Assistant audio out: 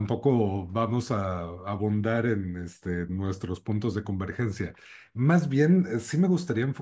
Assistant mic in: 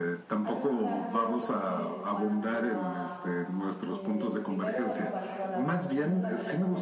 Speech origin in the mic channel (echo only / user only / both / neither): both